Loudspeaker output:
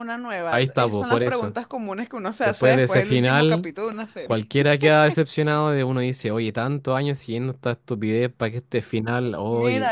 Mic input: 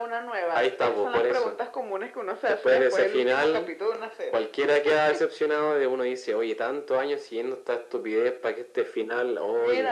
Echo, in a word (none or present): present